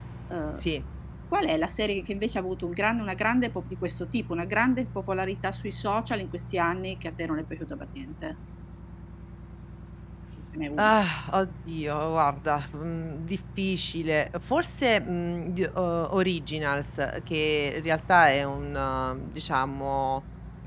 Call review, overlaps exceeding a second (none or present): none